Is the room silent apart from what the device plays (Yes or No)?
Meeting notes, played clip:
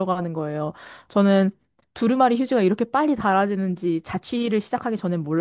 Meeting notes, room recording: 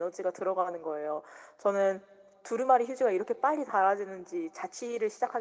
Yes